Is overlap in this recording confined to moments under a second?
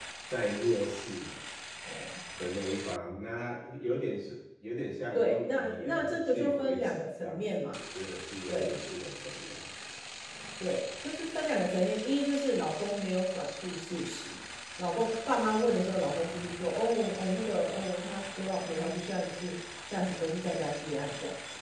No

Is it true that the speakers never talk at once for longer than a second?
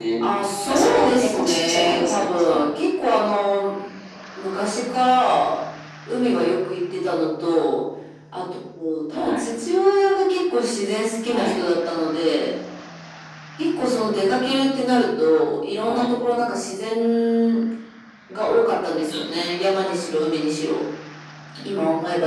No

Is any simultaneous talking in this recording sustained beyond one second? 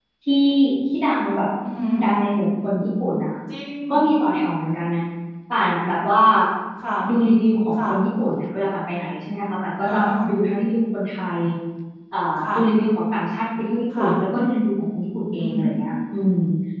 No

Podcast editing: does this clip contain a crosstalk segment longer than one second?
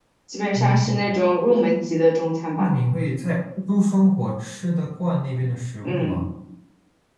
No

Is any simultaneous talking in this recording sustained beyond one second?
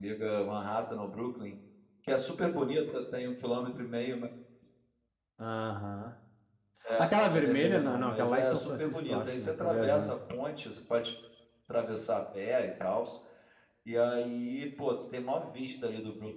Yes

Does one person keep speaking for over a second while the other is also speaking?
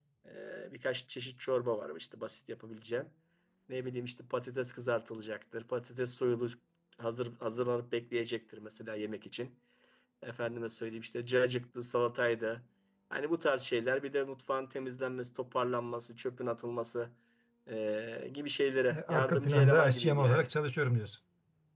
Yes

